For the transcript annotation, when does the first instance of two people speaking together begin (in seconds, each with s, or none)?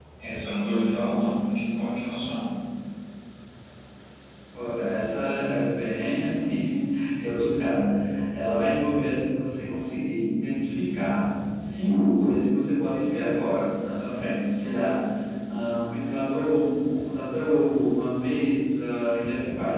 none